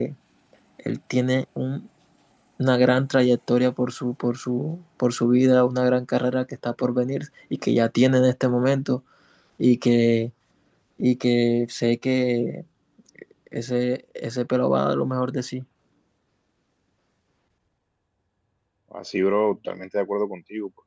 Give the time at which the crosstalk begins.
none

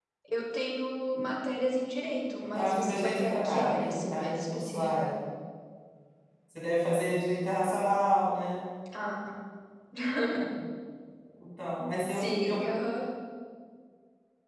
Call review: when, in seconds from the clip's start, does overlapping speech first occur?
3 s

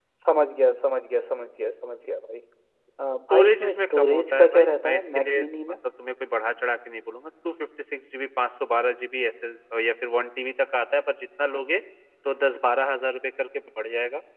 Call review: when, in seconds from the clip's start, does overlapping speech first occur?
3 s

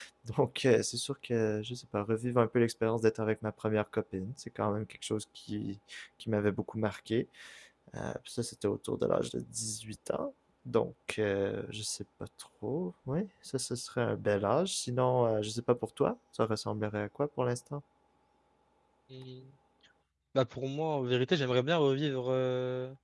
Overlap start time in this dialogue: none

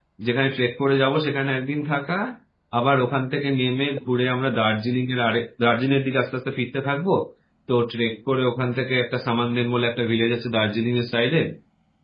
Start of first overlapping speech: none

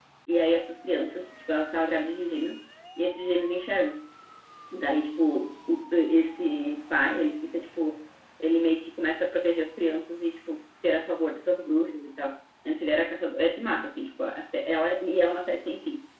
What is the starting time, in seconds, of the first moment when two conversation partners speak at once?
none

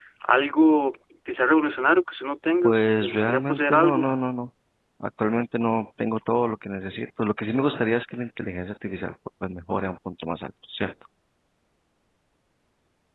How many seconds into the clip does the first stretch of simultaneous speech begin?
3 s

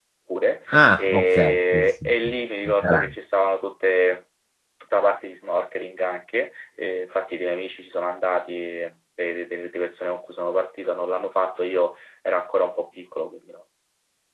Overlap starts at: 1 s

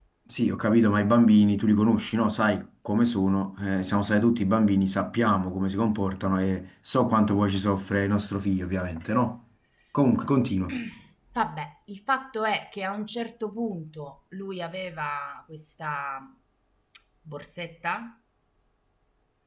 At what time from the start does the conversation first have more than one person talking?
none

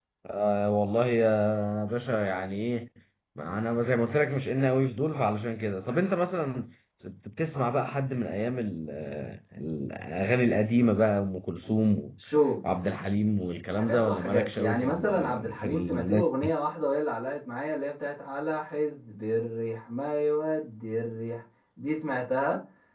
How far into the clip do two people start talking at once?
14 s

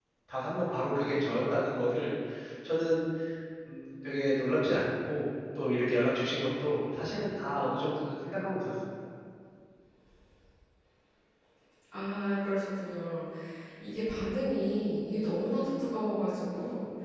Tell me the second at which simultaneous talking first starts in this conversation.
none

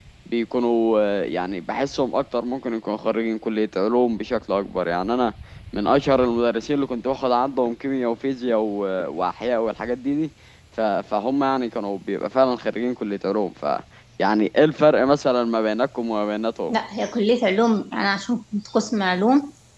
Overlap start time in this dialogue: none

